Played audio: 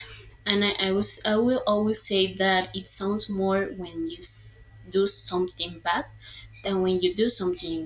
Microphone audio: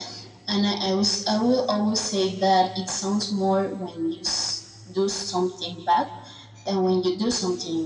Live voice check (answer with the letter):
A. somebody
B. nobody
B